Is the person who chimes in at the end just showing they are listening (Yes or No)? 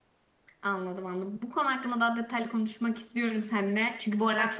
Yes